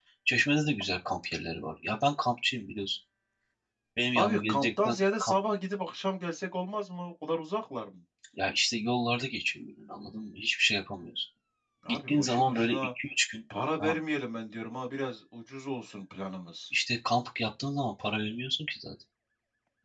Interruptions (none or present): present